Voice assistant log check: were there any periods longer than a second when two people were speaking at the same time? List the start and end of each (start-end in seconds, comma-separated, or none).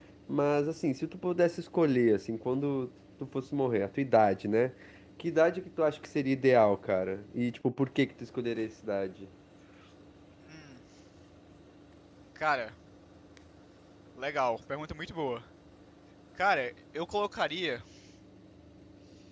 none